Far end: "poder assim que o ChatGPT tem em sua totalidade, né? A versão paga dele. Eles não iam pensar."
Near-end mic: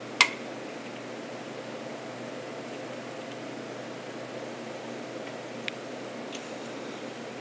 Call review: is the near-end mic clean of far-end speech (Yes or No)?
Yes